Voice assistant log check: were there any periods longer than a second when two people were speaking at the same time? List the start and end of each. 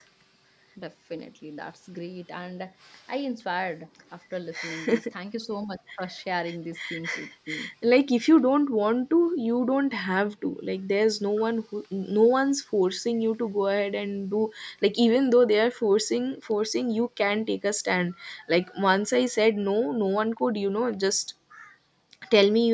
none

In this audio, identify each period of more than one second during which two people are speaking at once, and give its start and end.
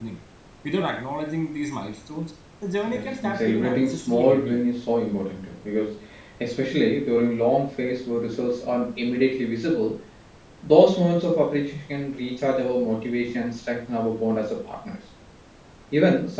2.9-4.6

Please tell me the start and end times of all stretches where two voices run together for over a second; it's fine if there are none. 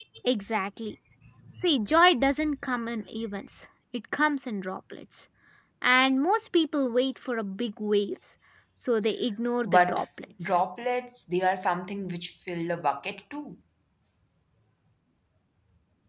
none

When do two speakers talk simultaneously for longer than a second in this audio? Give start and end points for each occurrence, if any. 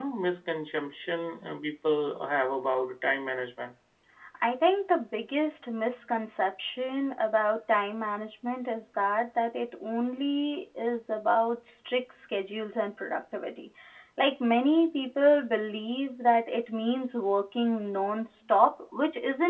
none

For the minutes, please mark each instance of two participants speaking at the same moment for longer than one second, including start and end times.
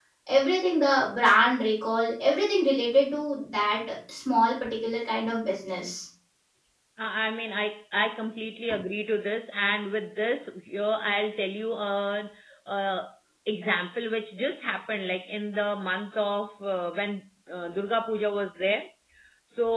none

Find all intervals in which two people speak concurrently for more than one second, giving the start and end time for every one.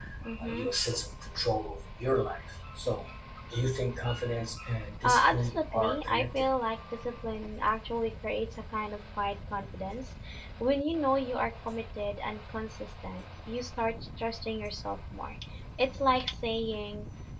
5.0-6.5

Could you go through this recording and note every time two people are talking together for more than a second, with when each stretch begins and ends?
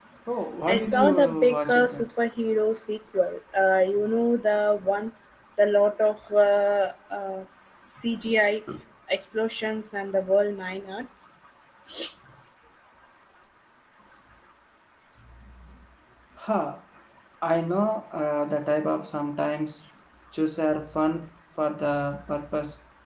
0.7-2.1

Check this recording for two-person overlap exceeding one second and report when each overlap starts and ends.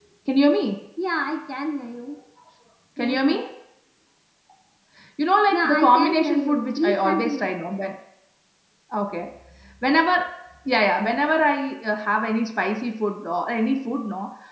5.5-7.5

